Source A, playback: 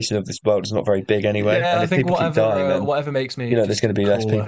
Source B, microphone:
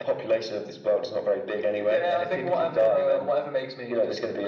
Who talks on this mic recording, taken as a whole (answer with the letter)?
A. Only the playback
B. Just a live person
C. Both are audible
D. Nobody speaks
A